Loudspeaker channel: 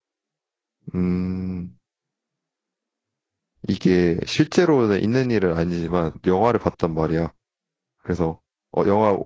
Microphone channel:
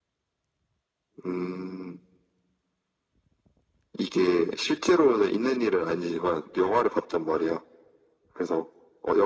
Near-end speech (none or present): none